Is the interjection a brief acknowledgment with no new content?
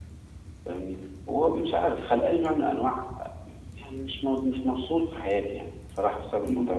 No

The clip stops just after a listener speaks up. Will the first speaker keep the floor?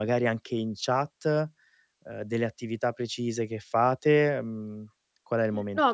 No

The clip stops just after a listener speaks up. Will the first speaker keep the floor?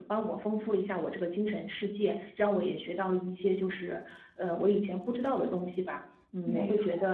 Yes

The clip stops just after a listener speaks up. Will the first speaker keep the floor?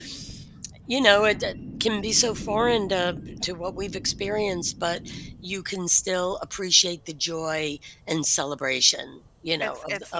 No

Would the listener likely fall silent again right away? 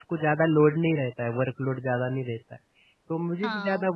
No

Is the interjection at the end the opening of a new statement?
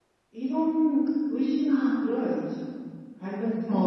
Yes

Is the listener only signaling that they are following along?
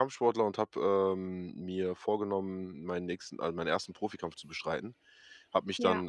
Yes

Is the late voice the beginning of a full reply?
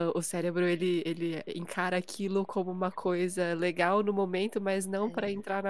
No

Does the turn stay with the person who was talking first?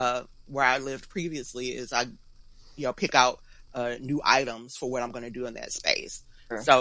Yes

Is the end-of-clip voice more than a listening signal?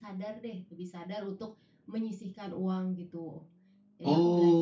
Yes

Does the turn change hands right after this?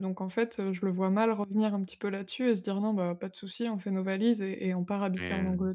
No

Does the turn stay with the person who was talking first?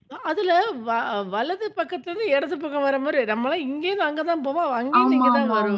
No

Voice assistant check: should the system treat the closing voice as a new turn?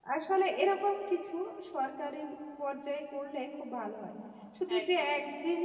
No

